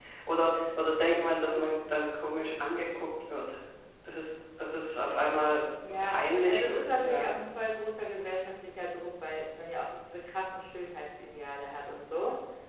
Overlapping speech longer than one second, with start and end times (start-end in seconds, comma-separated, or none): 6.0-7.3